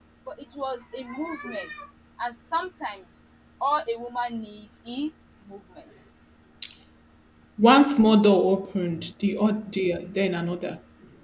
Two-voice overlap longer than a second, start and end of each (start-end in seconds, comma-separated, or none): none